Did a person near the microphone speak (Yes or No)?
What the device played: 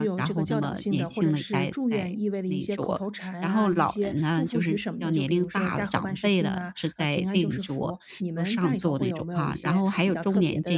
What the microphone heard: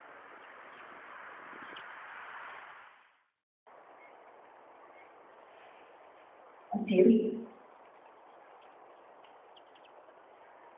Yes